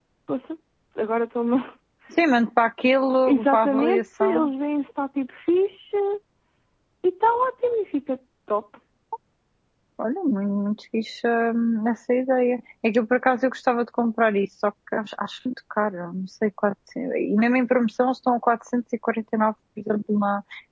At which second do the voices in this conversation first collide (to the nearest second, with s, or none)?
3 s